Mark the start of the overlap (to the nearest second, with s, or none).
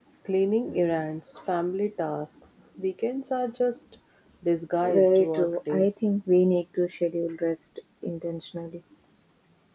5 s